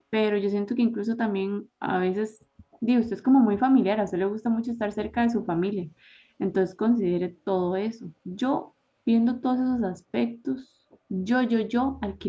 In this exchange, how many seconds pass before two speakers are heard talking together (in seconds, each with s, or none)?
none